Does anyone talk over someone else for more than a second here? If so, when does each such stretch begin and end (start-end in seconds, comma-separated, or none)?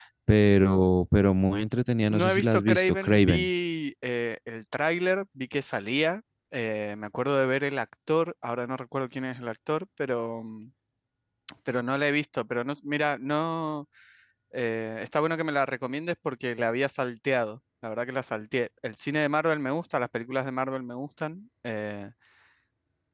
2.1-3.5